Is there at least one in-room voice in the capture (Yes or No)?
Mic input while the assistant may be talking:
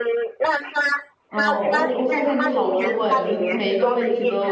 Yes